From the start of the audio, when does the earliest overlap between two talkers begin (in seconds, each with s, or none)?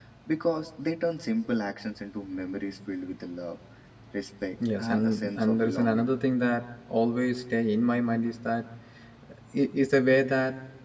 4.8 s